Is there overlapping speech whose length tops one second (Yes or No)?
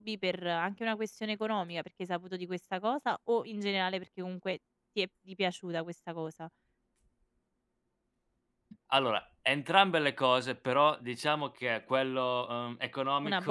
No